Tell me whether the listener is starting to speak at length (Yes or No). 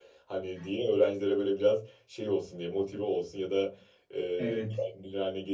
No